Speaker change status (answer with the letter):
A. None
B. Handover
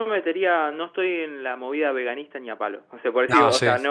A